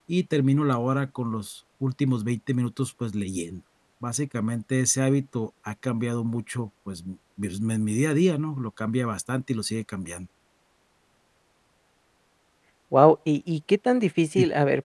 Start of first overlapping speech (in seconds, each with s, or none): none